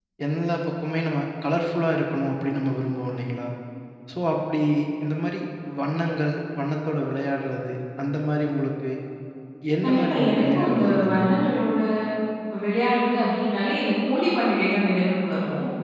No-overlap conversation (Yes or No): No